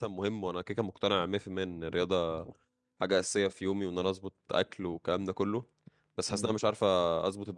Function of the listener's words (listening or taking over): listening